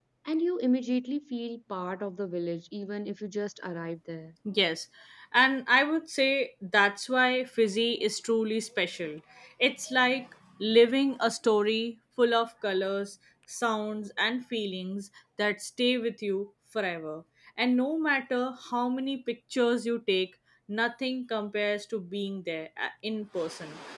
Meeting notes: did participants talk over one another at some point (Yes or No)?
No